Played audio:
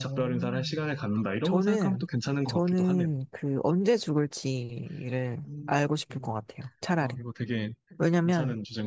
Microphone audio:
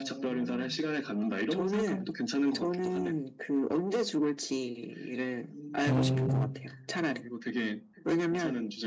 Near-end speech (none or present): present